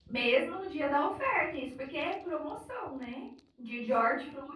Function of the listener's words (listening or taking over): listening